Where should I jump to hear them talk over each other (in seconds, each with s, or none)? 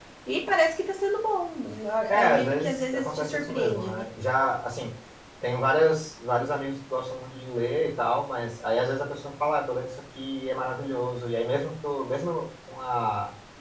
2.1 s